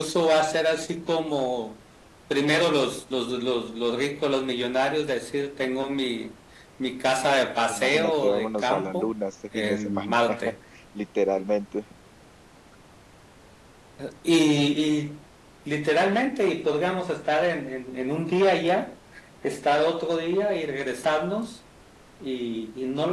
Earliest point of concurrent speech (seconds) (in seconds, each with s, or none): 7.7 s